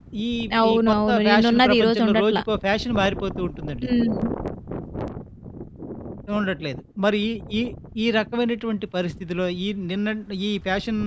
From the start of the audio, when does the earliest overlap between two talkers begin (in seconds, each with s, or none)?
0.7 s